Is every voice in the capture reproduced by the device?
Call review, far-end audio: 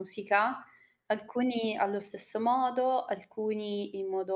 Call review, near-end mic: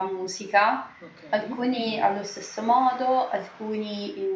No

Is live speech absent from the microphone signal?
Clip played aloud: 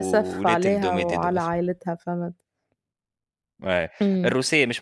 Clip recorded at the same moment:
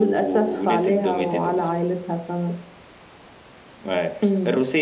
Yes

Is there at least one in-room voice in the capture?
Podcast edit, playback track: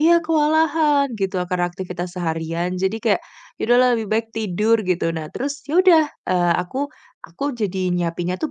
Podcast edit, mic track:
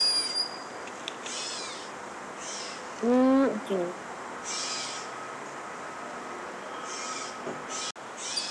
Yes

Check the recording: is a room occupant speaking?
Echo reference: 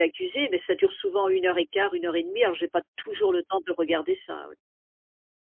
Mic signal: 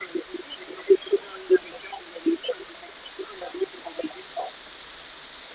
No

